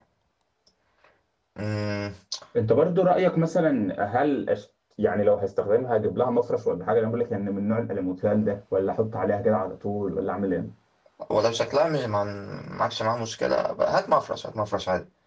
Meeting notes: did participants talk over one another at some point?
No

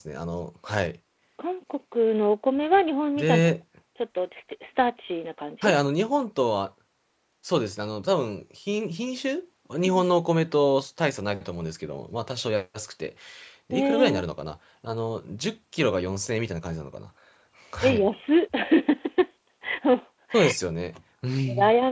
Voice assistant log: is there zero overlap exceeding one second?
Yes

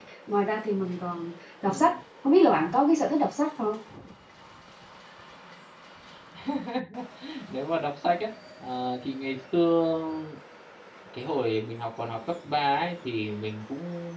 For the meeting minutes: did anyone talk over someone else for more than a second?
No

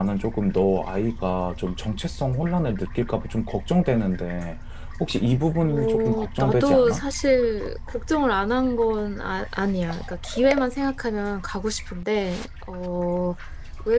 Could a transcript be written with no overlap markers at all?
No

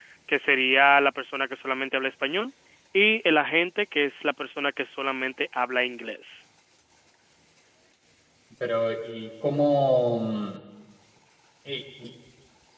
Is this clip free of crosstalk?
Yes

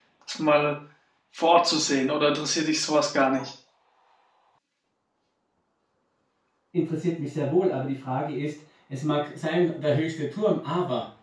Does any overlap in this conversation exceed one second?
No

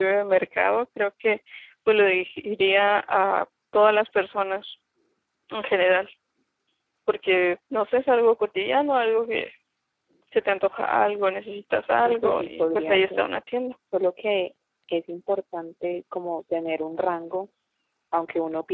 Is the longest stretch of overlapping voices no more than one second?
No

